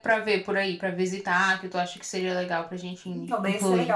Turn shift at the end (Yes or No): Yes